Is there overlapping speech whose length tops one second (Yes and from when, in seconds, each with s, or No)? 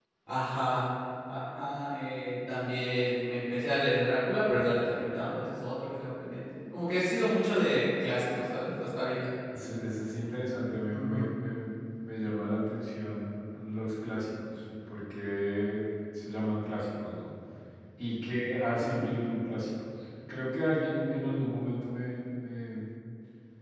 No